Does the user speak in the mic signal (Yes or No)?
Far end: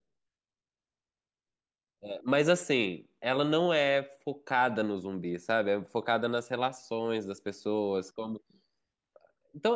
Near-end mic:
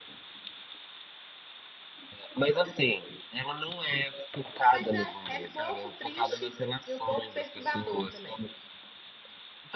Yes